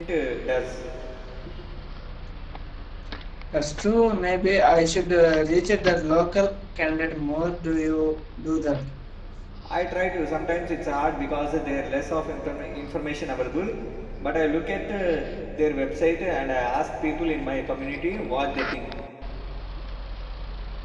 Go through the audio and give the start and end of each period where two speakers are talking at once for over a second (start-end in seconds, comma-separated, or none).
none